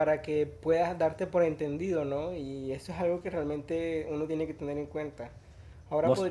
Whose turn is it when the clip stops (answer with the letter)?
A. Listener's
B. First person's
B